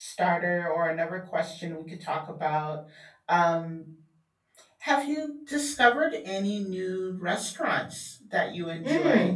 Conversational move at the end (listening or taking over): taking over